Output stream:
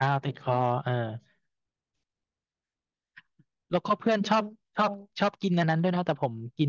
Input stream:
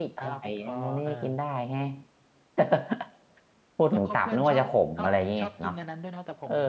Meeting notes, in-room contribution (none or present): present